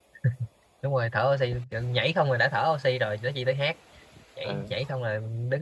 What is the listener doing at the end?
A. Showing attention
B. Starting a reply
A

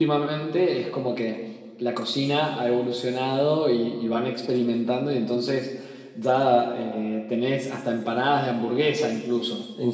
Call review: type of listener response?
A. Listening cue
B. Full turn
A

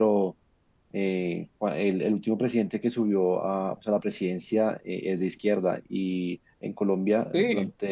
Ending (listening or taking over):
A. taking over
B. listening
B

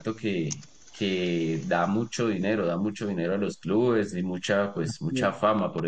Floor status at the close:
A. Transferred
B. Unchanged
B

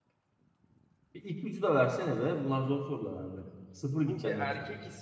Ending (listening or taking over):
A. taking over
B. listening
A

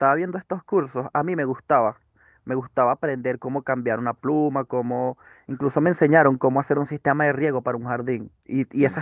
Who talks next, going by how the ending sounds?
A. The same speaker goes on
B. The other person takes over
A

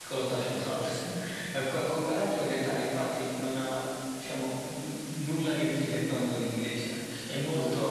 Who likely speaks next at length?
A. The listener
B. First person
B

